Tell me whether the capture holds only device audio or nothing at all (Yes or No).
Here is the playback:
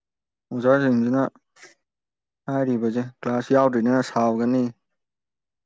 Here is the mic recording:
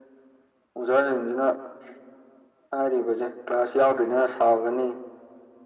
Yes